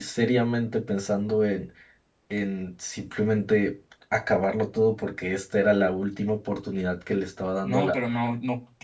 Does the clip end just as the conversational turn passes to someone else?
Yes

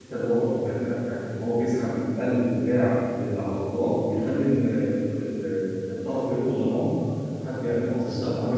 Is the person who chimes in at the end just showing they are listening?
No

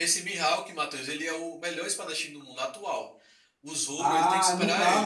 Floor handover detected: Yes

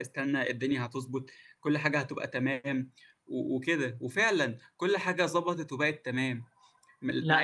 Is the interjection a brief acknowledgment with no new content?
Yes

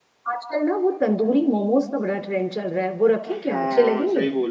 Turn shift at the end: Yes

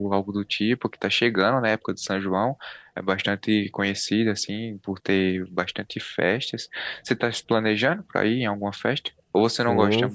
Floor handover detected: Yes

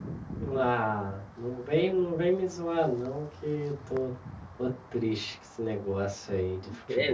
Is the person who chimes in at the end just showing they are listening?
No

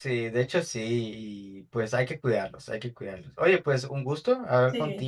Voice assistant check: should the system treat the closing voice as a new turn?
No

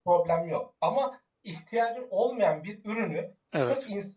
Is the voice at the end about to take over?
No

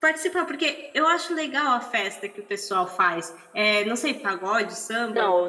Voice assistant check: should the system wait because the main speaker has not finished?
No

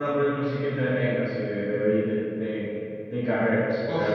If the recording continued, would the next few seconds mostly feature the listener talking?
Yes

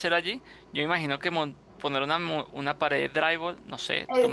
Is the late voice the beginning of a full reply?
Yes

